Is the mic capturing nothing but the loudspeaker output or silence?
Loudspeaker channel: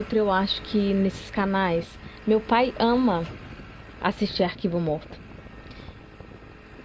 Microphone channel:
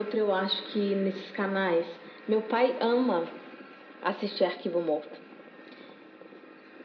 Yes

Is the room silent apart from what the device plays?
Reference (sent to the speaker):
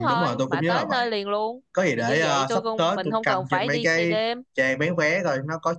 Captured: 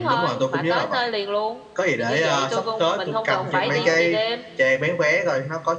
No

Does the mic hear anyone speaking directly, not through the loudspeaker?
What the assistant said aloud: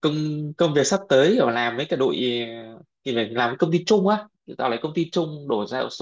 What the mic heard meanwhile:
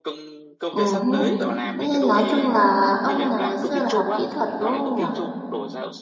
Yes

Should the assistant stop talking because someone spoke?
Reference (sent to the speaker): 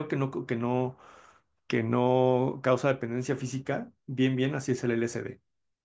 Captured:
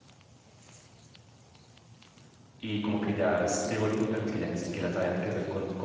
Yes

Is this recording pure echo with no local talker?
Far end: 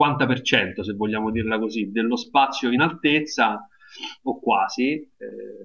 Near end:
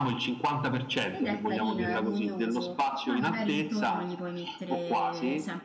No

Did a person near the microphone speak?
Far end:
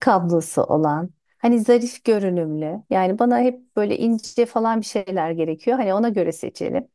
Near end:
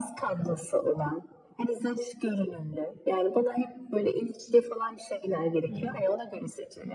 Yes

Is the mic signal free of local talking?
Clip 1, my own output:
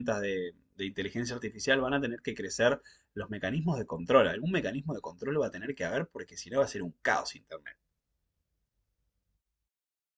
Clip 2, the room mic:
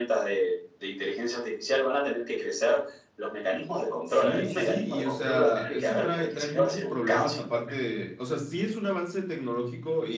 No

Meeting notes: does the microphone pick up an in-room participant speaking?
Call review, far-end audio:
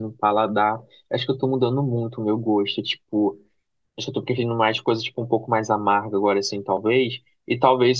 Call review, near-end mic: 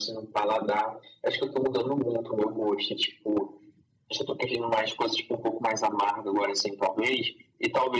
No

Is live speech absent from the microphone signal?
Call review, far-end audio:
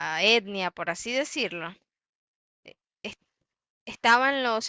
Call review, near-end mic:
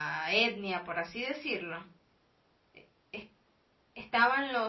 Yes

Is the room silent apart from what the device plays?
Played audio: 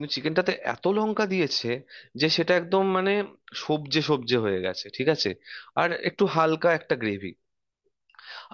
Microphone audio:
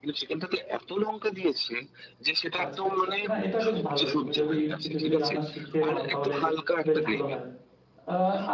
No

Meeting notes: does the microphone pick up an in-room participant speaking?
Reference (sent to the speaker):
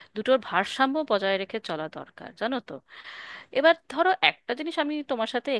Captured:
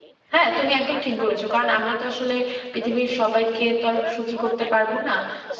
Yes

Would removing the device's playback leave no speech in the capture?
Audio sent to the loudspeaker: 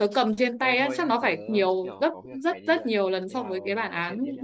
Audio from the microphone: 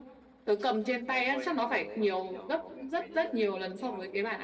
Yes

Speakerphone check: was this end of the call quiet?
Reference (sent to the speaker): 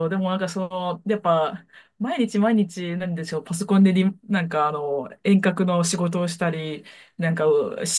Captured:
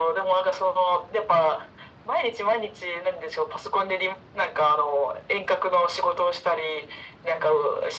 Yes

